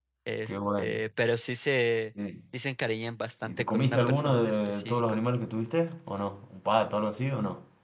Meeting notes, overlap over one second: present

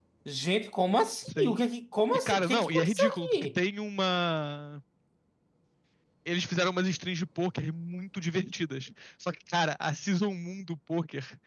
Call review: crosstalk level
present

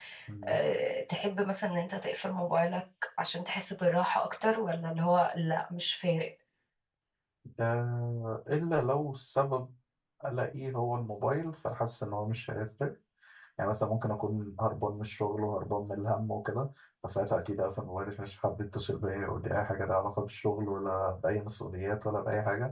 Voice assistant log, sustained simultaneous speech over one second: none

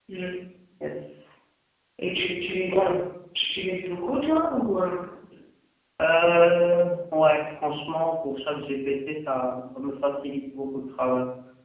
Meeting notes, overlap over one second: none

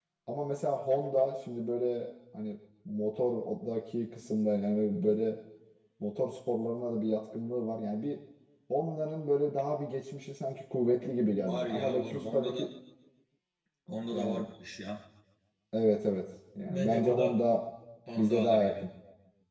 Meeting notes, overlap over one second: present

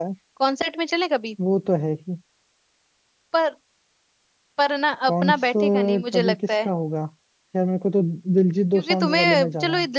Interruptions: present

